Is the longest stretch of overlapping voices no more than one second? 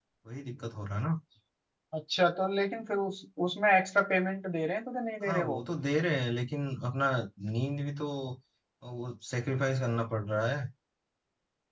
Yes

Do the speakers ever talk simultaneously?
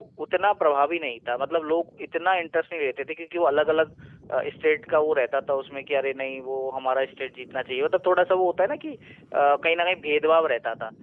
No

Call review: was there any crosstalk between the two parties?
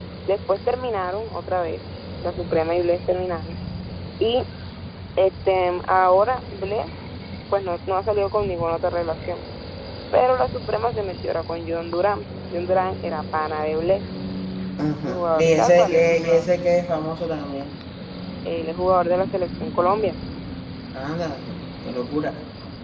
Yes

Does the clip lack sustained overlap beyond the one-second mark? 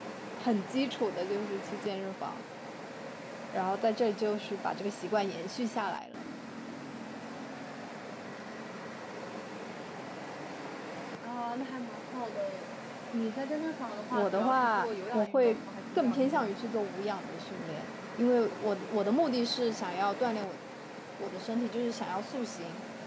No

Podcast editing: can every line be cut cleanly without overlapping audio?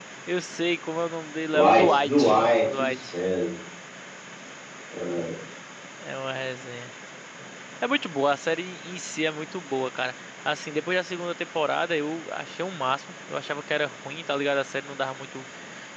No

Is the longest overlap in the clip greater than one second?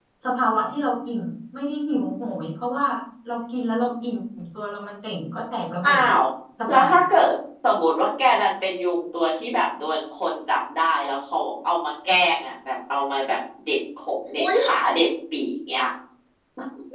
No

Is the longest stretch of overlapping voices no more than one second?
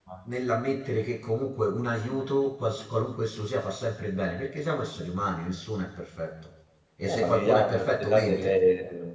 No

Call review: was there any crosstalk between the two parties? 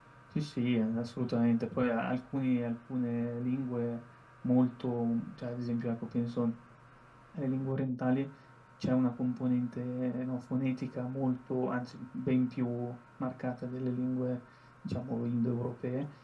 No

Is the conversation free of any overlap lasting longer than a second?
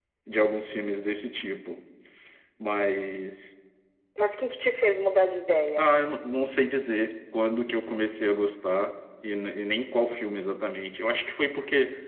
Yes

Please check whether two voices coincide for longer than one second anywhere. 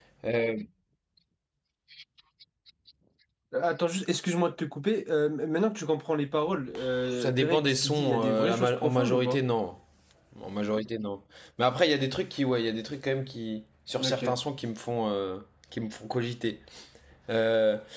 Yes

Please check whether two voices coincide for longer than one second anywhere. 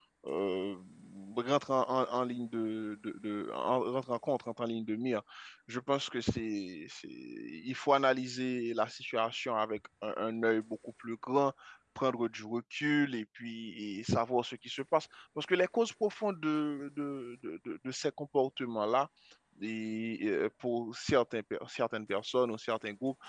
No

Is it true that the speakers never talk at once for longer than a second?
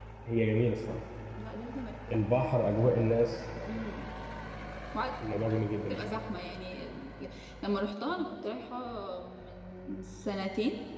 Yes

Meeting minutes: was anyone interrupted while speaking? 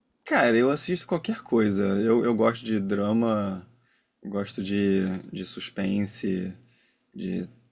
No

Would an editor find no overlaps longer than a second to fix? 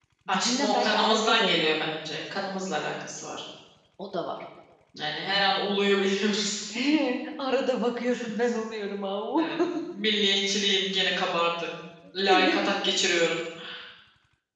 No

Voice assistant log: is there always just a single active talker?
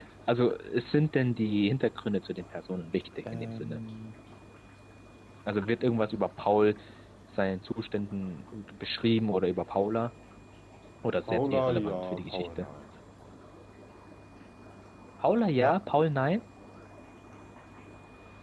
No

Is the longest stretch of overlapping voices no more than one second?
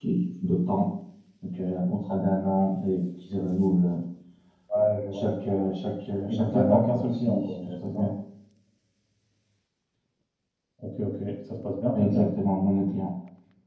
No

